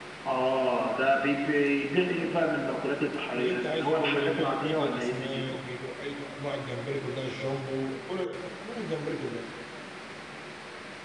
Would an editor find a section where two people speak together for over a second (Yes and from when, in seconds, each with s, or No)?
Yes, from 3.4 s